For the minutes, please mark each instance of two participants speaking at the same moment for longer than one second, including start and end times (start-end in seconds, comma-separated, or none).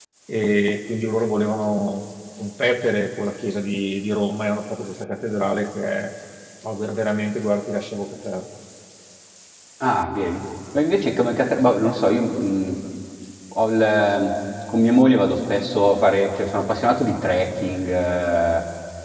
none